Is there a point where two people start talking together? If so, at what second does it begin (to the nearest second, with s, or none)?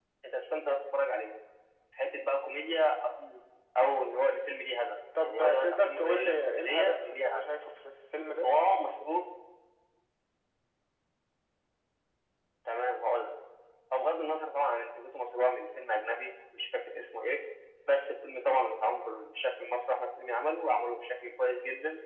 5 s